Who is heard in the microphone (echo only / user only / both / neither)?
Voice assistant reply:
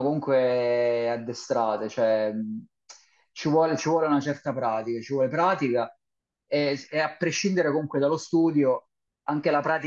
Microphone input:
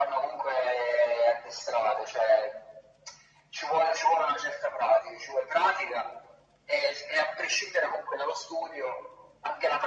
echo only